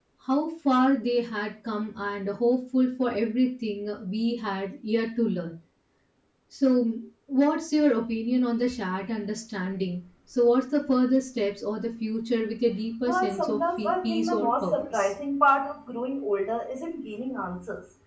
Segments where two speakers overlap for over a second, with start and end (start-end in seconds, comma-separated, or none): 13.1-15.1